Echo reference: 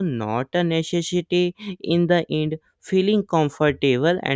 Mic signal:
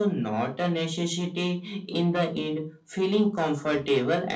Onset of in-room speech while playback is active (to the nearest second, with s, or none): none